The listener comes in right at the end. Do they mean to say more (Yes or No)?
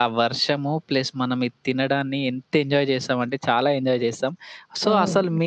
No